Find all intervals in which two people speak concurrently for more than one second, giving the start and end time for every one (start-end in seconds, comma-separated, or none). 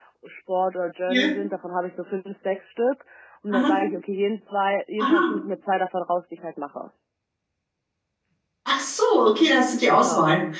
none